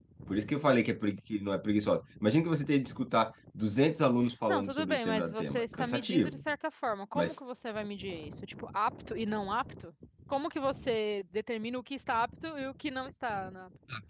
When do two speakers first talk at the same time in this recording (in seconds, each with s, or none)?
4.5 s